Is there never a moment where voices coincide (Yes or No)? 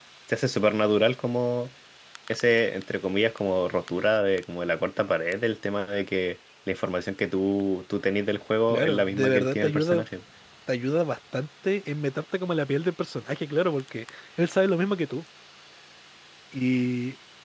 No